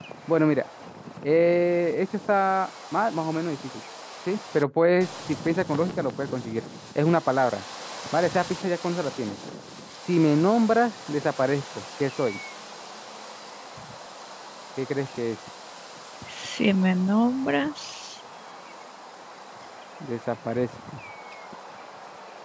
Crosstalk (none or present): none